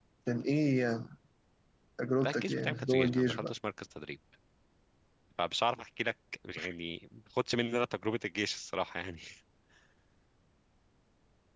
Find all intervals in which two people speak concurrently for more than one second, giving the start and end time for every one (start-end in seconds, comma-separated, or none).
2.2-3.5